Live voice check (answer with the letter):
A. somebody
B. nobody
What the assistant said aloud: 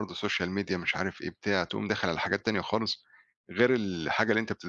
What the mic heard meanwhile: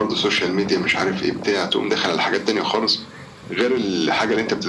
B